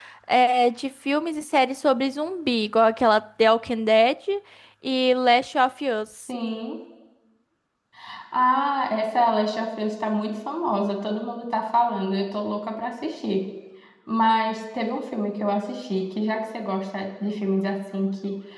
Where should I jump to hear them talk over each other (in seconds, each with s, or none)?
none